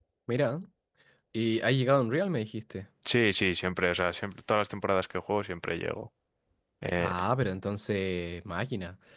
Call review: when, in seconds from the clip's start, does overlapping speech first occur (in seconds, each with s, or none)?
none